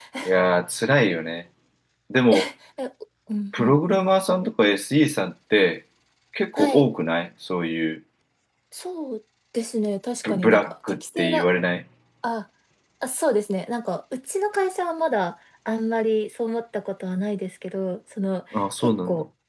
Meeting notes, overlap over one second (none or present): present